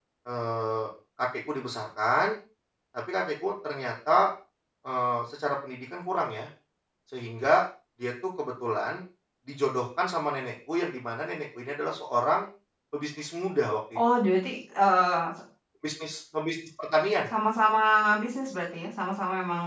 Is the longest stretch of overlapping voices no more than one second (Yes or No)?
Yes